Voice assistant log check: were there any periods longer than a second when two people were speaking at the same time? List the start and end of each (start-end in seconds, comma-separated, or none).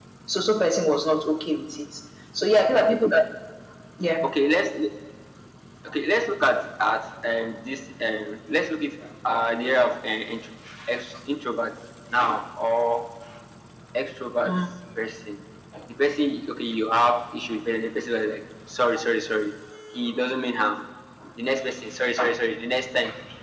none